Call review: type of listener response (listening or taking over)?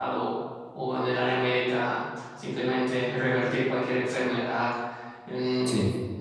listening